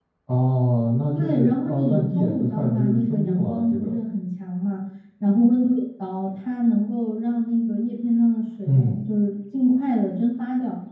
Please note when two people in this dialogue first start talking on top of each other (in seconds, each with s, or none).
1.1 s